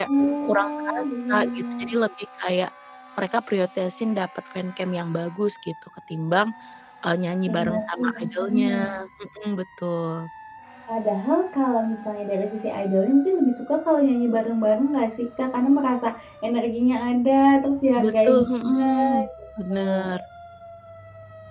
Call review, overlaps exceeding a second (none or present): present